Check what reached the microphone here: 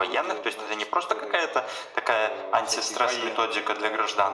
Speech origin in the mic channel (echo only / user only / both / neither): echo only